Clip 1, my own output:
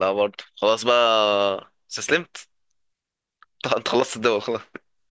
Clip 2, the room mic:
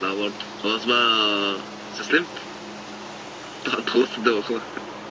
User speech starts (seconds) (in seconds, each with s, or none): none